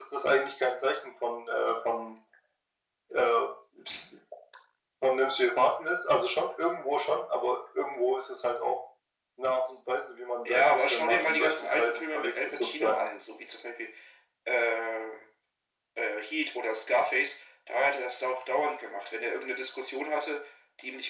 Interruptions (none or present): present